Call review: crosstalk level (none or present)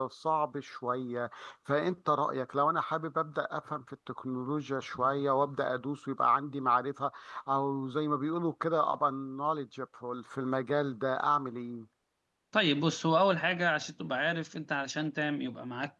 none